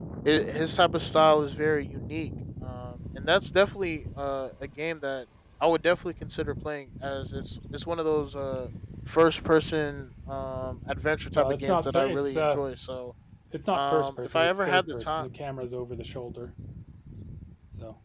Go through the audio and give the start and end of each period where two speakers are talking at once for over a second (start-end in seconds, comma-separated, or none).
11.3-12.6, 13.7-15.2